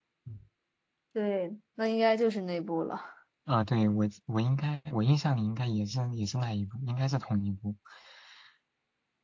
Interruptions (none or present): none